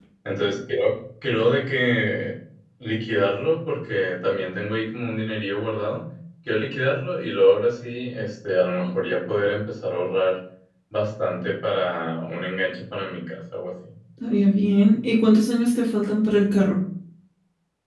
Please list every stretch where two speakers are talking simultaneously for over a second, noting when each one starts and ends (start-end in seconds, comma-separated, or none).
none